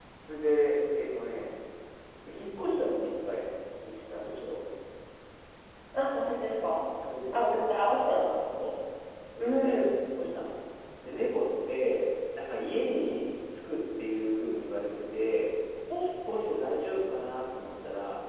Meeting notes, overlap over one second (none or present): none